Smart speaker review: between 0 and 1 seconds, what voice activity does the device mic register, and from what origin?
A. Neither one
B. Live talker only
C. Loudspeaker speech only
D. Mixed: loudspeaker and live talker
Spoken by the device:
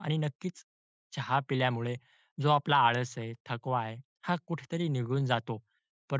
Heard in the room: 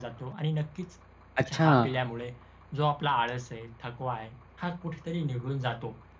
C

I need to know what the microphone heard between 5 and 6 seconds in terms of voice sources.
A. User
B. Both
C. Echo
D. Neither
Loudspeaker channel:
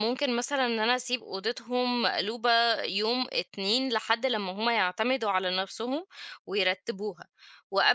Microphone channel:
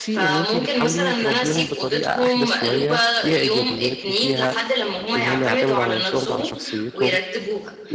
B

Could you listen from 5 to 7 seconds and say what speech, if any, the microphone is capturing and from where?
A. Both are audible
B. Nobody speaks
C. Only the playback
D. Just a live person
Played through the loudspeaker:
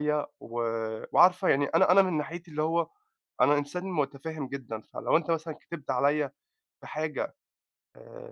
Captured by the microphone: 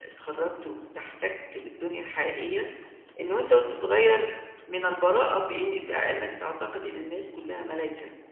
D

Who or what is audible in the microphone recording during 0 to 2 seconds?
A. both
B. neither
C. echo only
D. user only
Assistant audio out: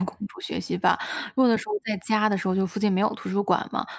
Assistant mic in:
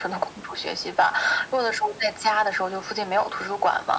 C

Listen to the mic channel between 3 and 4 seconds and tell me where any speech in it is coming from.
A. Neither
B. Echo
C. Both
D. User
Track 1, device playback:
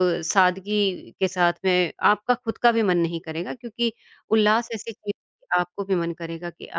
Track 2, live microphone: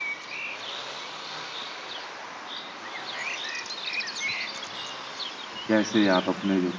A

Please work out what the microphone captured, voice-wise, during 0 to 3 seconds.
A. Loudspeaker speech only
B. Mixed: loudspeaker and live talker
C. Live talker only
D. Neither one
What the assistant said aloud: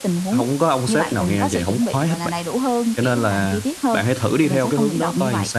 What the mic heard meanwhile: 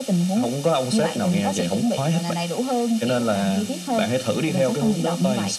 A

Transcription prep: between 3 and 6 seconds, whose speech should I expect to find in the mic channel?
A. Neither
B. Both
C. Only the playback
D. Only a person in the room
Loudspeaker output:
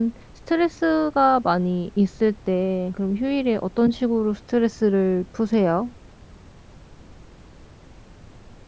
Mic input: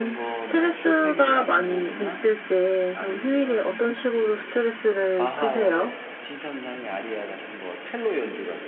B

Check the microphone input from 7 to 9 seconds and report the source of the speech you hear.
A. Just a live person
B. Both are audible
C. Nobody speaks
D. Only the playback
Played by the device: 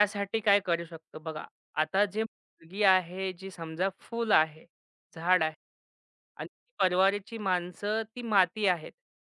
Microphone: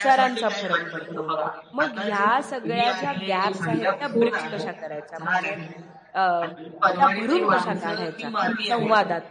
B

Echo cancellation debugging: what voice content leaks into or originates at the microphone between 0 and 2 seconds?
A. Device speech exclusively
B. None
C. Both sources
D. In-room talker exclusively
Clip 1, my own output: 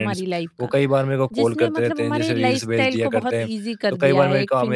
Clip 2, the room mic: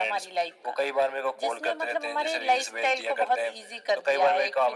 A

